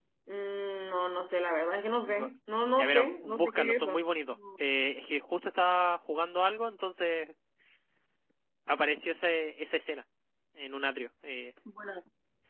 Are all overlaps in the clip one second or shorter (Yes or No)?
No